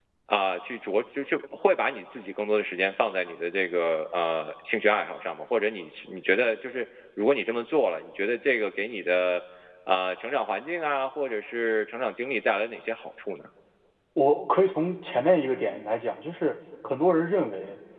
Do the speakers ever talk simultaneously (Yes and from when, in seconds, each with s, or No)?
No